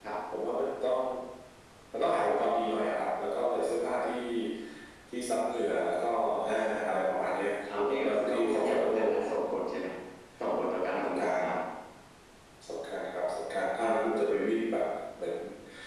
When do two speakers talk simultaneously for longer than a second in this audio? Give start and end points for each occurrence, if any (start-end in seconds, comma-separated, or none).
7.8-9.1